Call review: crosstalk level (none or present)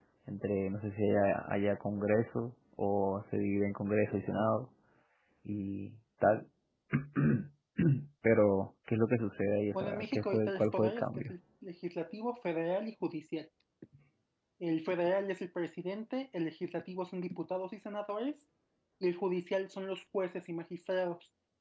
present